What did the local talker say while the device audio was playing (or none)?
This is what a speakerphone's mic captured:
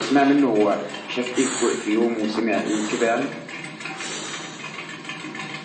none